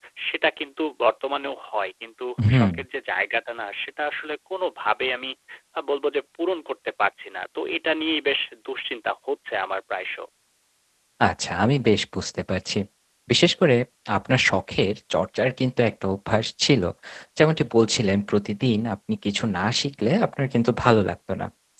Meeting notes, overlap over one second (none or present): none